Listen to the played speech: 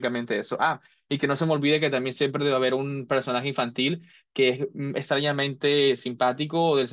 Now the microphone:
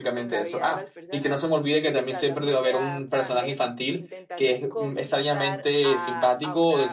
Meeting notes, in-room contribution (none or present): present